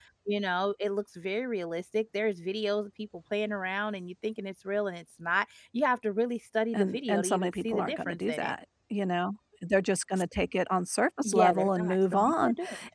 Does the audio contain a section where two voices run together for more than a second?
Yes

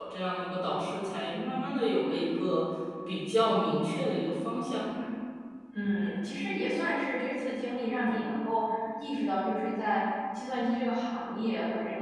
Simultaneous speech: No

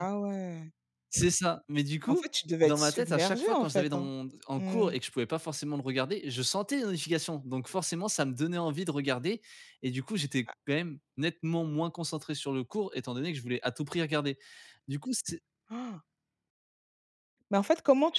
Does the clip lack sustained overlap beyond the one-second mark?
No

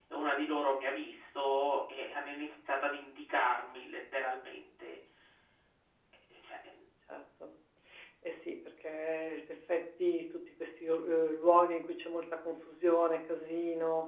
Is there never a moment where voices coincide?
Yes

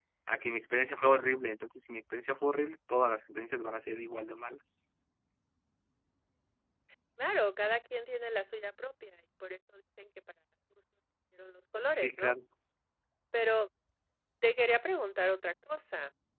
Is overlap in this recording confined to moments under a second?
Yes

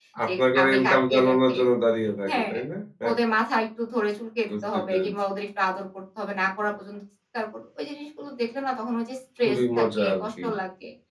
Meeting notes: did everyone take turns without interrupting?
No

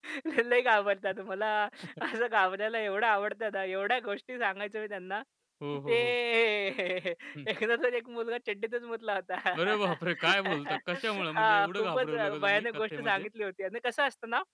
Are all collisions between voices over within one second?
No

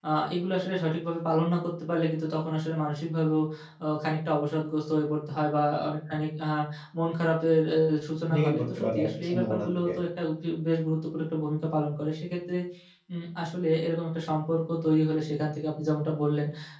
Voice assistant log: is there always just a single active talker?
No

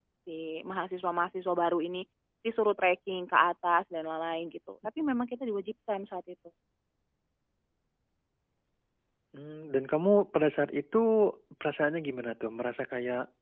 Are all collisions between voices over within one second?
Yes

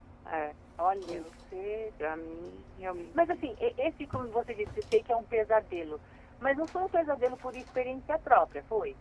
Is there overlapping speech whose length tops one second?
No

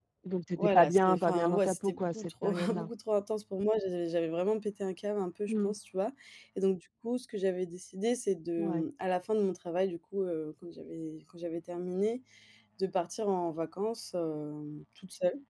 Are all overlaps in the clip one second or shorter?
No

